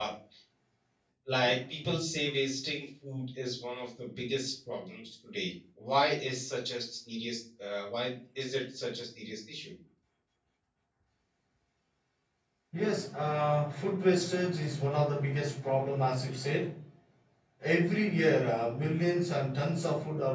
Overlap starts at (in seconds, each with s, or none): none